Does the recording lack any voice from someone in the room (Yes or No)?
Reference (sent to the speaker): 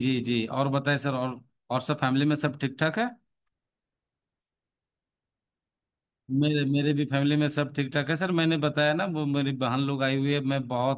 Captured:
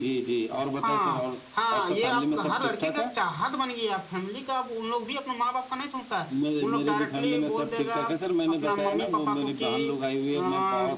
No